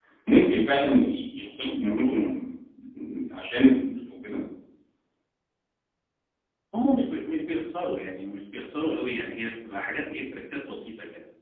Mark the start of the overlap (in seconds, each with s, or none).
none